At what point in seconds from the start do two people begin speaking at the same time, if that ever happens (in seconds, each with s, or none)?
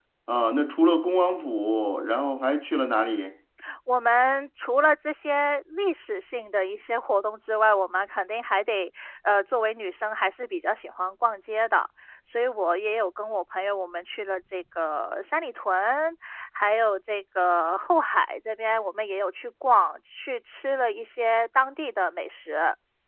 none